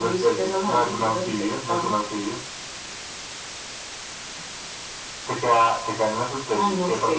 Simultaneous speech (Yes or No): Yes